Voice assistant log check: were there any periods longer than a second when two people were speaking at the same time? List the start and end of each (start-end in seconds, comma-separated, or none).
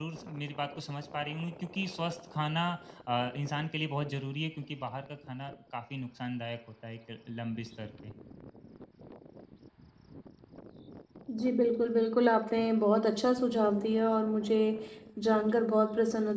none